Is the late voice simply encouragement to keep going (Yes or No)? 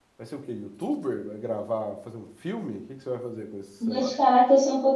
No